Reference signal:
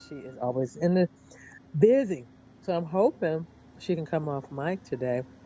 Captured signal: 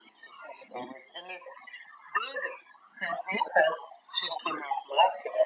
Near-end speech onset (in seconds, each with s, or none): none